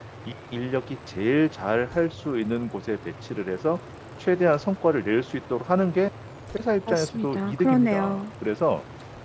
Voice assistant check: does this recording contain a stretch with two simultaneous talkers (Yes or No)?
Yes